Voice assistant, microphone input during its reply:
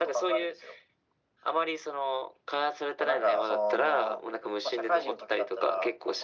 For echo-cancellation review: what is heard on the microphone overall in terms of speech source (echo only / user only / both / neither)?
echo only